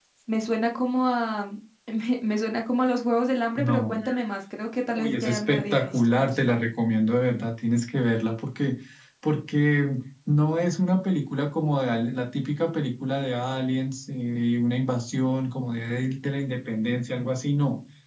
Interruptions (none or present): present